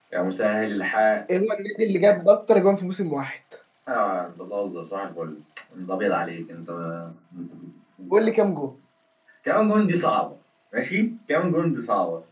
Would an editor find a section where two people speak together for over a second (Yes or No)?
No